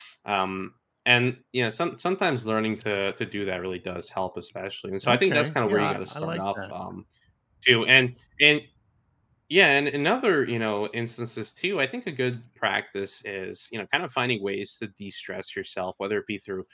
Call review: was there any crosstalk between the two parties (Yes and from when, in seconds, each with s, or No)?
Yes, from 5.0 s